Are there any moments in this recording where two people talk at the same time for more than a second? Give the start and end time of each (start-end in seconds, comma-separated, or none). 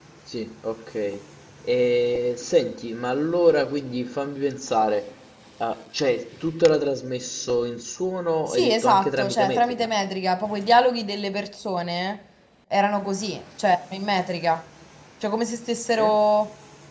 8.5-9.9